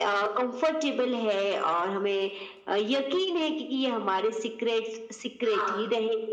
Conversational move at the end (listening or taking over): listening